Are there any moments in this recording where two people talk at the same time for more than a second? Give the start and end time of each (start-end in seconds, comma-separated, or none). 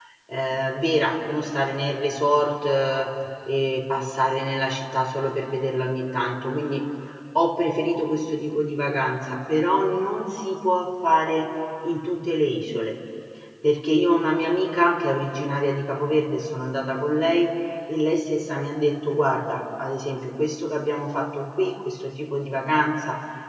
none